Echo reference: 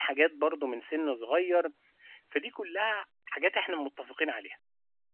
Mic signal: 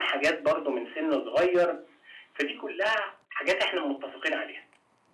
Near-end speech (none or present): none